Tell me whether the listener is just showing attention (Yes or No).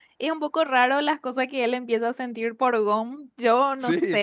Yes